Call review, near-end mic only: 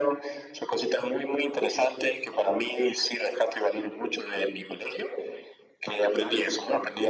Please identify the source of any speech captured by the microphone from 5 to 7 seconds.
both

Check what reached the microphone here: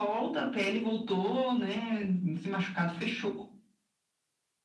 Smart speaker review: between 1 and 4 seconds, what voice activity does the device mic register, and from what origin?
echo only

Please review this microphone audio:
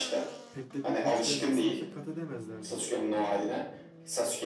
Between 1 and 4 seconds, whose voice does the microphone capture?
both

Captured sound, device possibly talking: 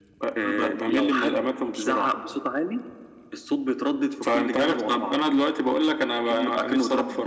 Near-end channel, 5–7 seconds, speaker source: echo only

